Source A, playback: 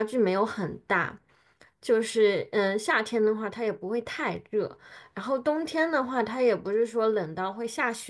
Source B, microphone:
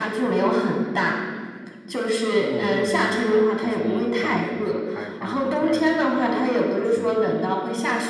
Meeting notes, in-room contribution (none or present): present